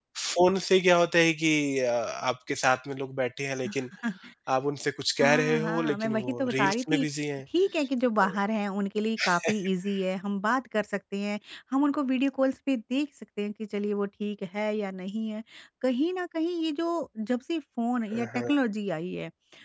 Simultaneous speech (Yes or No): Yes